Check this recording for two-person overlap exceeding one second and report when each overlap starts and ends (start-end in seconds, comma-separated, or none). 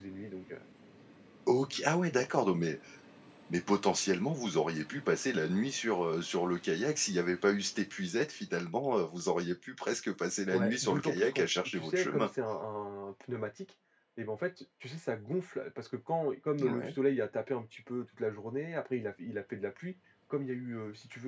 10.5-12.3